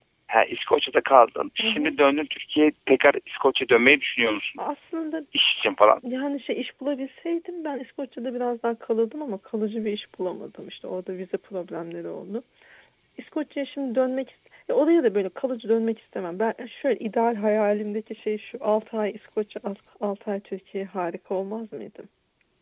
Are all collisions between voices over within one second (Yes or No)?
Yes